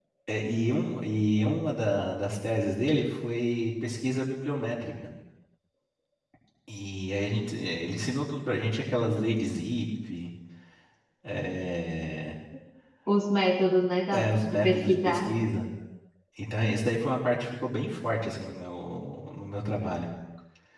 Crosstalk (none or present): present